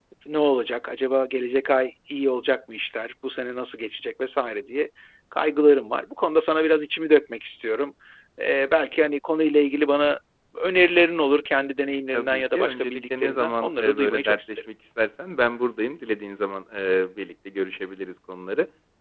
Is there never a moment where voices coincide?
No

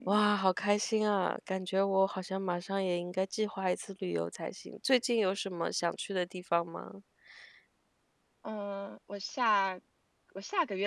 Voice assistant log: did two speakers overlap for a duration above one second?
No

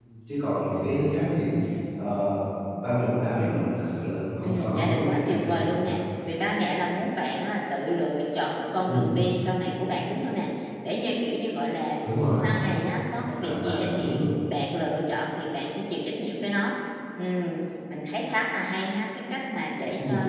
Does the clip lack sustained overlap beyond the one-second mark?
No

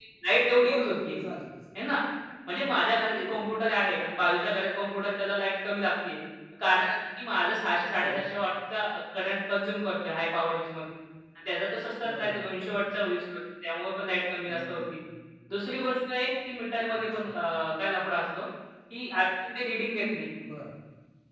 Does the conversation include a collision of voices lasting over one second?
No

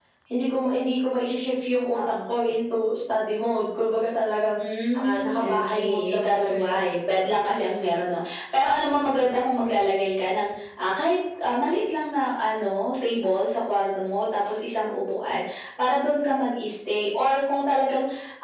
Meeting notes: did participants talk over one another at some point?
Yes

